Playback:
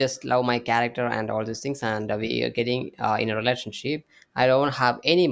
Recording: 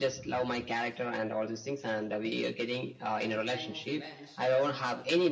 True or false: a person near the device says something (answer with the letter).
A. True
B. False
A